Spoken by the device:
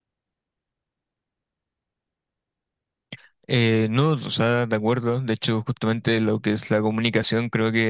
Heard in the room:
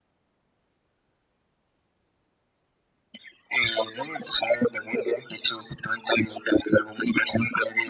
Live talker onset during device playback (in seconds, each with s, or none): none